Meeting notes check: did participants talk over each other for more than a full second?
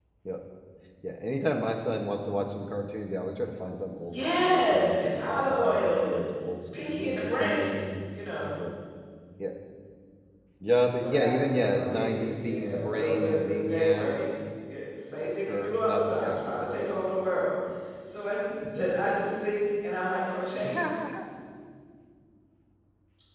Yes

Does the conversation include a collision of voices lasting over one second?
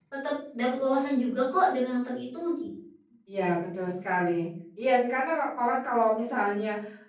No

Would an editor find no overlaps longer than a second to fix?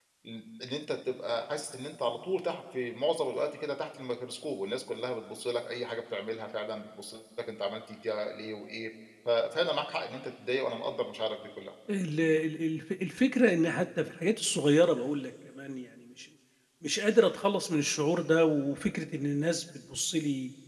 Yes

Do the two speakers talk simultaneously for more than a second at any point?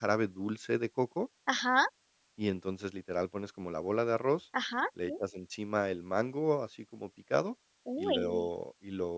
No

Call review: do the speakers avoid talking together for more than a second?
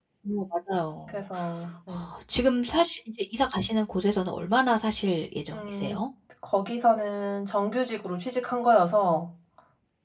Yes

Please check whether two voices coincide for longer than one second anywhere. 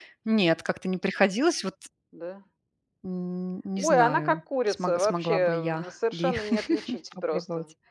Yes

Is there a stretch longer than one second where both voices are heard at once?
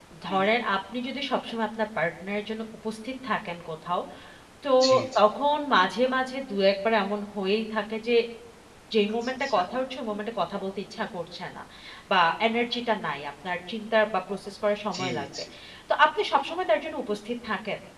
No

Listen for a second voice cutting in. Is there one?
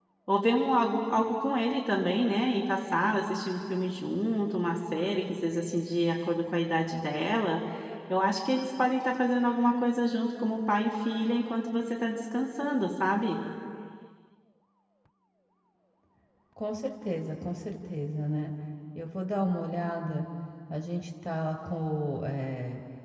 No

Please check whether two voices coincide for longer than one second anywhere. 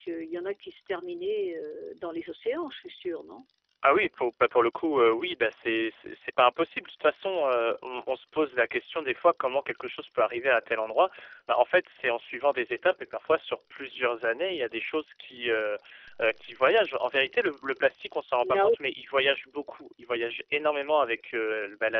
No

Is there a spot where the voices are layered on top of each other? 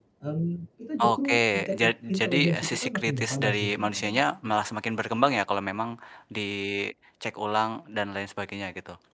Yes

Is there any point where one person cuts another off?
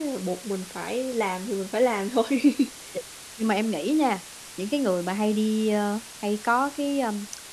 No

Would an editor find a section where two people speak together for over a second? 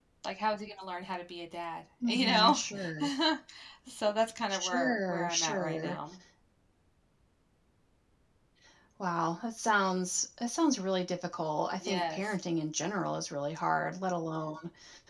Yes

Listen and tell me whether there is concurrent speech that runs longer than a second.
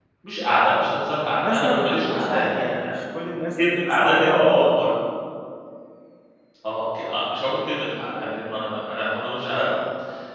Yes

